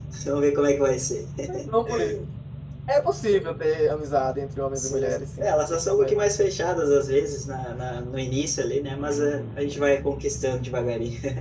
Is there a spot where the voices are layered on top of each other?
Yes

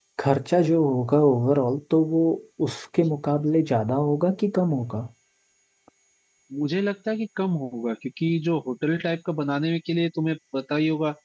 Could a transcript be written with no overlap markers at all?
Yes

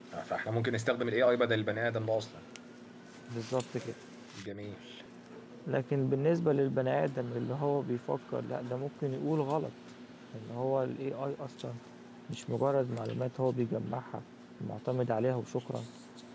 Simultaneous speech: No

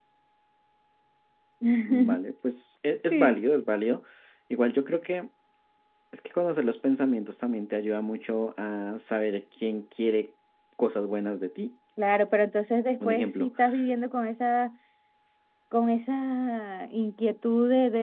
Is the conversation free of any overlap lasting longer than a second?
Yes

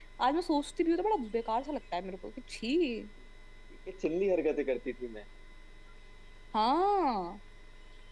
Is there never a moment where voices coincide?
Yes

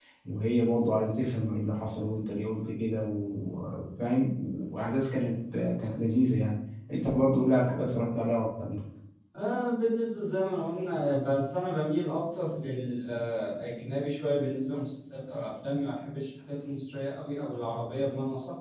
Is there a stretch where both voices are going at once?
No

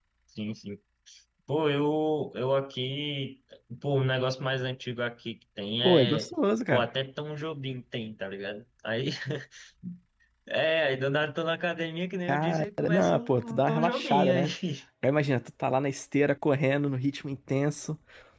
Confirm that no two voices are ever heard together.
No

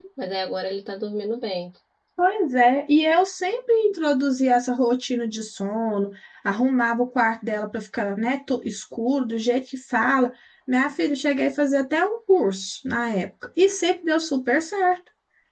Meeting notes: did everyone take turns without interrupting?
Yes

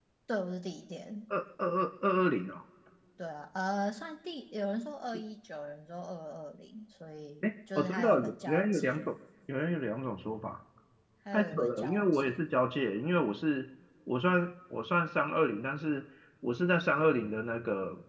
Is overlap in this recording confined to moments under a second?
No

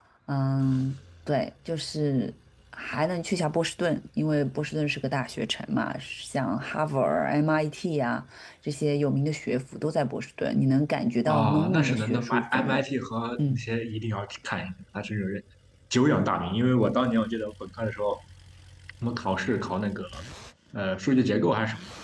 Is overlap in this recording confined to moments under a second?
No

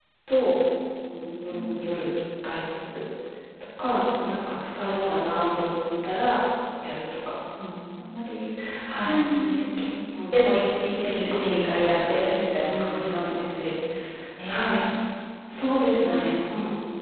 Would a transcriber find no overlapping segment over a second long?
No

